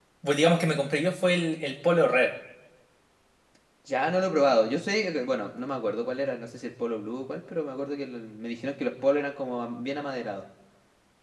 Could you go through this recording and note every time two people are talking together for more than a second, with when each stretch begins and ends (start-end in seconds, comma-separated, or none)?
none